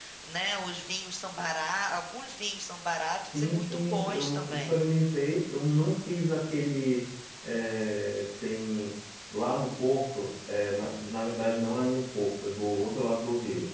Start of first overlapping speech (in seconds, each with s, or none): 3.3 s